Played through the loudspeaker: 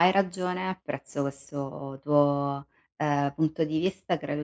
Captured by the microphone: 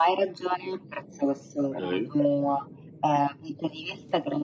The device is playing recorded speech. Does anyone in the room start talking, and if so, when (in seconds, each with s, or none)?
1.8 s